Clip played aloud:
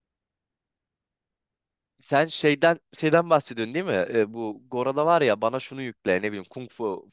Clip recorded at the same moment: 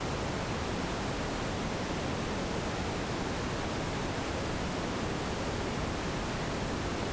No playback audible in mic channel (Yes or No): Yes